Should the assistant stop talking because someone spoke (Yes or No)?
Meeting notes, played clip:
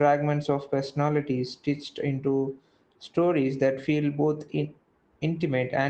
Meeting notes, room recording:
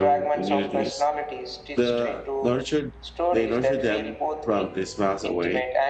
Yes